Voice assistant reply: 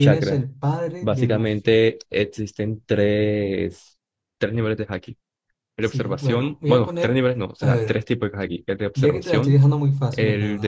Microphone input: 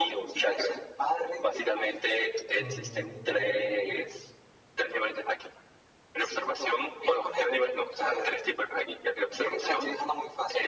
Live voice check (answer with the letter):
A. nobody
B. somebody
B